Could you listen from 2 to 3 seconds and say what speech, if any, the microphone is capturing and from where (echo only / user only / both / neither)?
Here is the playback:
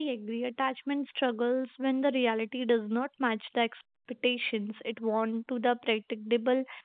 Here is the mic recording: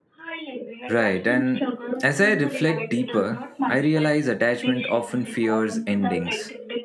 both